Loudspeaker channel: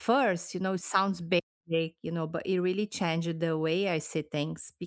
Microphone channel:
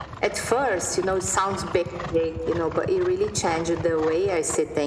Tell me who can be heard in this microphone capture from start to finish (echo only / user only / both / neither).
echo only